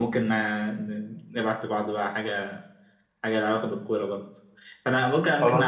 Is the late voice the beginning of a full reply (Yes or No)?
No